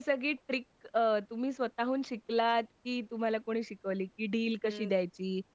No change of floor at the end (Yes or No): Yes